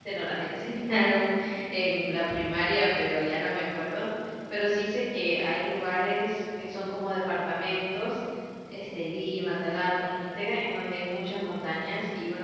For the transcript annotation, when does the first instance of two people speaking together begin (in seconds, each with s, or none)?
none